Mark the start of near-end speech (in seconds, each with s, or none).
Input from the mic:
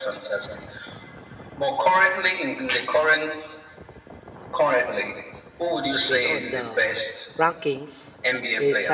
6.1 s